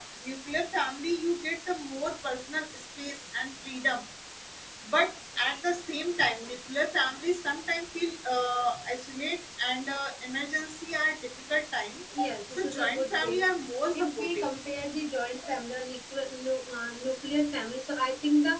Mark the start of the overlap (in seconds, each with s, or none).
12.2 s